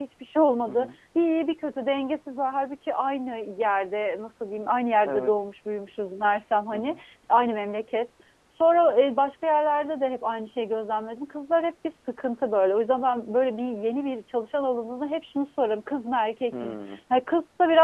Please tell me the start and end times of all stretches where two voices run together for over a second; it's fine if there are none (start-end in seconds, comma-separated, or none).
none